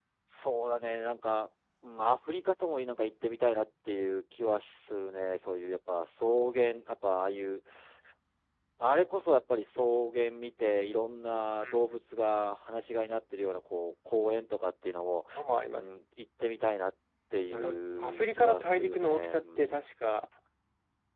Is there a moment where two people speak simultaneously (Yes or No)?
Yes